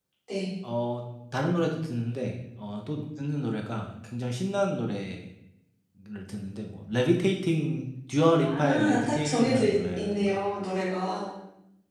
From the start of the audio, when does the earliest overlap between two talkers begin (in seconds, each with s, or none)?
8.4 s